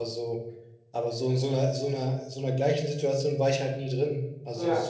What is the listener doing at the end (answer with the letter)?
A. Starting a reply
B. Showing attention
B